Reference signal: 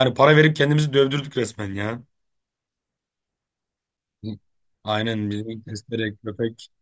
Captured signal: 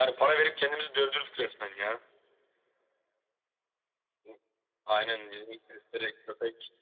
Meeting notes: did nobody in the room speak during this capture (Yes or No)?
Yes